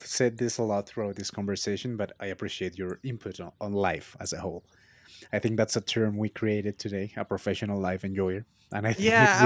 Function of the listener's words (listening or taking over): taking over